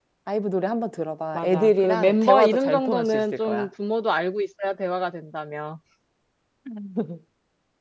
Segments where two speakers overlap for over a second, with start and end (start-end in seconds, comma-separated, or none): 1.4-3.7